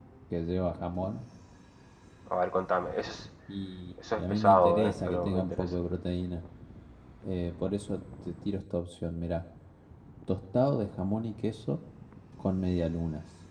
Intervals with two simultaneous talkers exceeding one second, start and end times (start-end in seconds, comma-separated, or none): 4.1-5.7